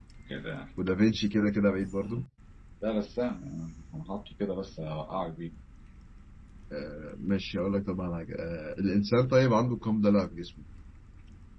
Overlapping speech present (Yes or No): No